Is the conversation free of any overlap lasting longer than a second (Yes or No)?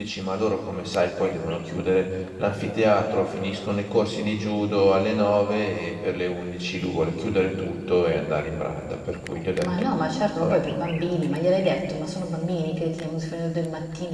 Yes